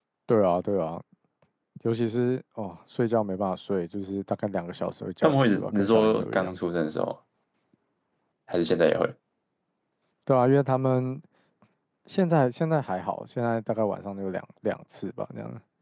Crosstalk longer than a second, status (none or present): present